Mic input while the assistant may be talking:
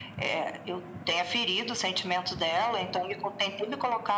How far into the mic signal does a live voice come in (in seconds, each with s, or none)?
none